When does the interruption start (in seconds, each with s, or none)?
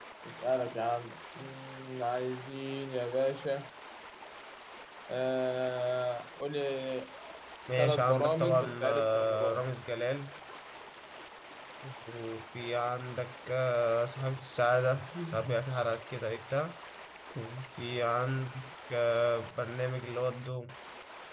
7.8 s